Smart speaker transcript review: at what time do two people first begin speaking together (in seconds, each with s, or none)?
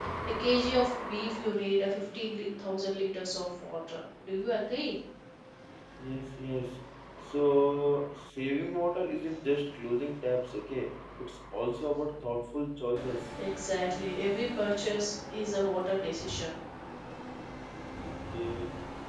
none